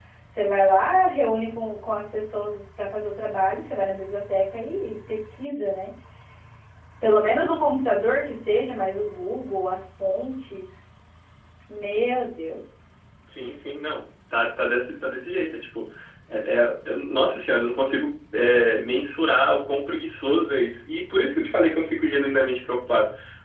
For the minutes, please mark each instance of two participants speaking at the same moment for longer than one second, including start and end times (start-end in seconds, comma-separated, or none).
none